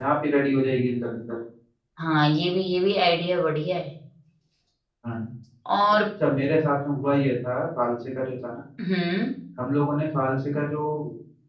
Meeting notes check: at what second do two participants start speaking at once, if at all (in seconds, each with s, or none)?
none